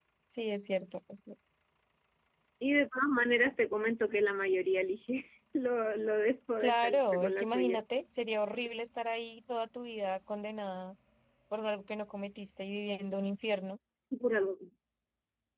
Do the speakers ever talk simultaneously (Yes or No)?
Yes